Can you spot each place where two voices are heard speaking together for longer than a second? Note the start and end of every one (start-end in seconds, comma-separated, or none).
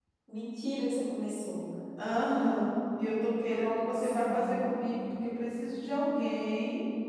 3.4-4.7